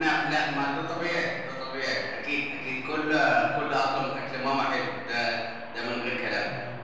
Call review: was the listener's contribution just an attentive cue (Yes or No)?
Yes